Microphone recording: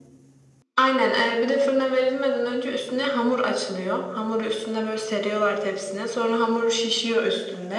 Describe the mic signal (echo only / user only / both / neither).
echo only